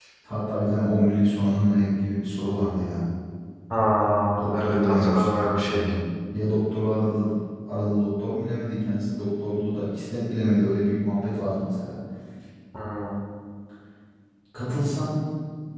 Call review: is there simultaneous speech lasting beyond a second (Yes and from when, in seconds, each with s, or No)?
Yes, from 4.6 s